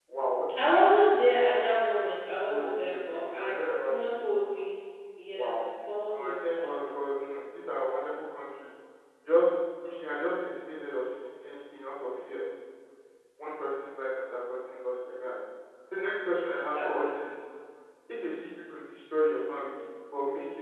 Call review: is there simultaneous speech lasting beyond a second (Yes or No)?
Yes